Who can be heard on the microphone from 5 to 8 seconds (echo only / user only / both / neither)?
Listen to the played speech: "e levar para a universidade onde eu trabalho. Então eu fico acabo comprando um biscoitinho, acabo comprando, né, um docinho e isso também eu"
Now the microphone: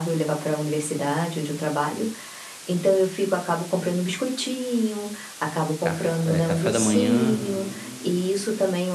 both